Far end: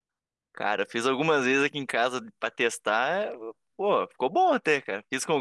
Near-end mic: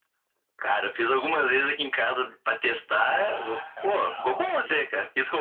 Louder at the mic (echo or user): echo